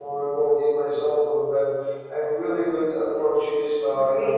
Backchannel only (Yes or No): No